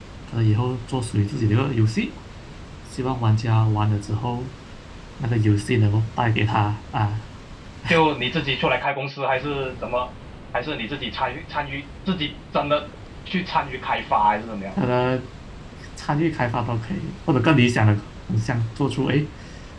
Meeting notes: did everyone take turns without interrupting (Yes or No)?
Yes